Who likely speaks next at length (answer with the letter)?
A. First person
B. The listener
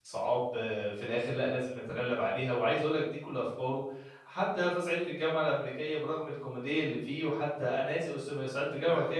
A